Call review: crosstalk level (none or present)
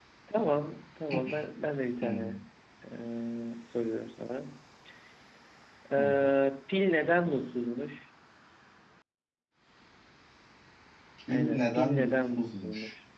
present